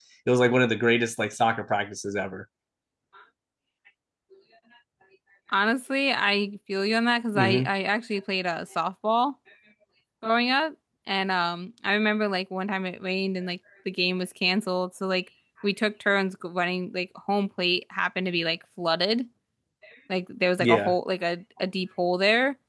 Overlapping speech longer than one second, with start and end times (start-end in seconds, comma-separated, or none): none